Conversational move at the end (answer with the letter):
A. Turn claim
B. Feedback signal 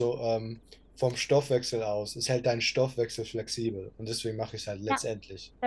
A